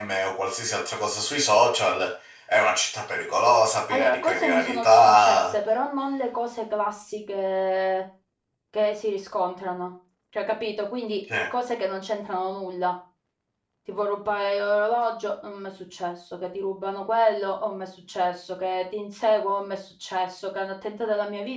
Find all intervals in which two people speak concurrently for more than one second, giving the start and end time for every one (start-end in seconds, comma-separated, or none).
3.9-5.5